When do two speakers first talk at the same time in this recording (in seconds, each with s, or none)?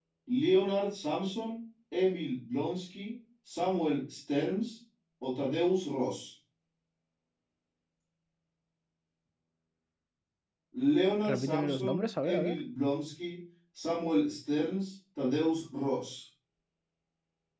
11.2 s